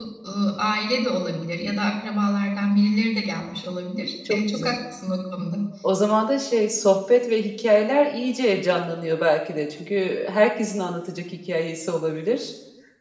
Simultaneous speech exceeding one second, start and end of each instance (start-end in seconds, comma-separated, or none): none